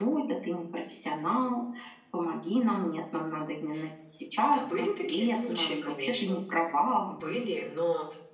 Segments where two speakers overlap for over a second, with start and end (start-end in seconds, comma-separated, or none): 4.4-6.4